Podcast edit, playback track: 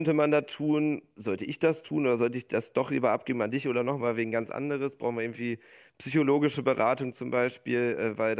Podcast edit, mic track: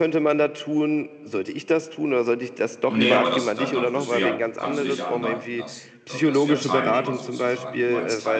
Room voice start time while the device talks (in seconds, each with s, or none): 2.9 s